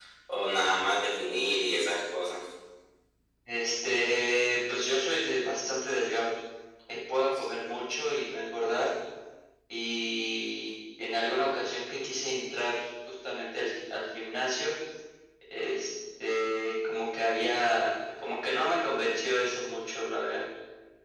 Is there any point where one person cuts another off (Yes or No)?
No